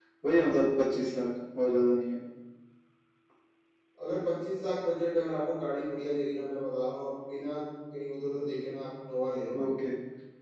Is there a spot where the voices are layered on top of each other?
No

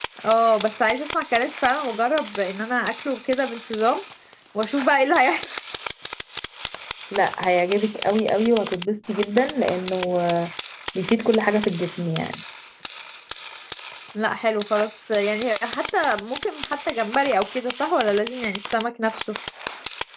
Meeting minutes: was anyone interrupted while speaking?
No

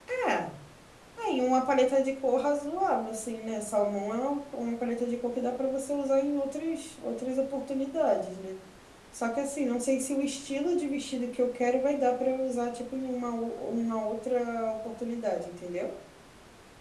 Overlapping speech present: No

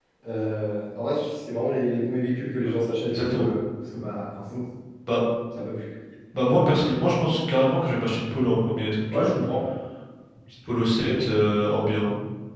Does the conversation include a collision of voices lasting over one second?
No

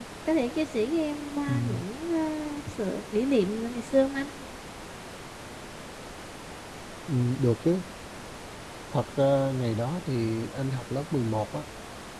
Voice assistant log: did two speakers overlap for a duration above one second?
No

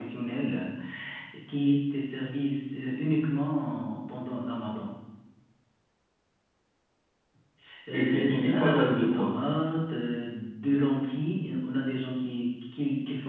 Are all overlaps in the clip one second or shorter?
No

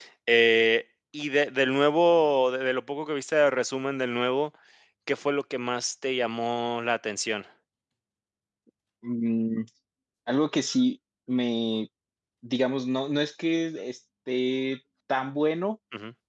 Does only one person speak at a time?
Yes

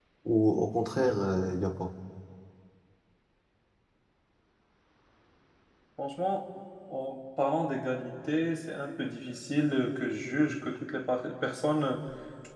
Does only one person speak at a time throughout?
Yes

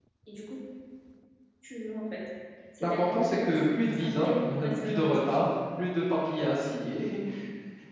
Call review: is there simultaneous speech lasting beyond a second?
Yes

